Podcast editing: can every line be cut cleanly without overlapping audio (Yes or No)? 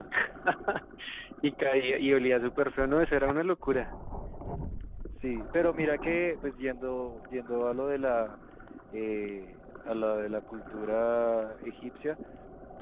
Yes